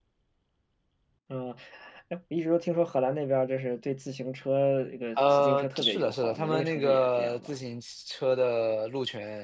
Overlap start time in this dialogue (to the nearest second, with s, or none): 5 s